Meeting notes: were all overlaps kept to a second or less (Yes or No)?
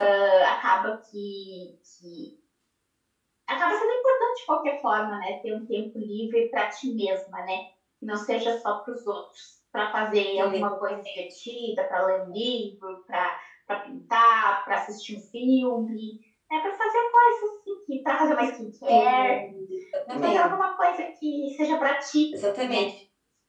Yes